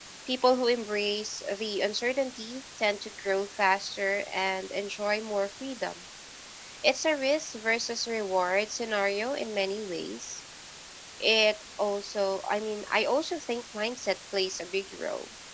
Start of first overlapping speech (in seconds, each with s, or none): none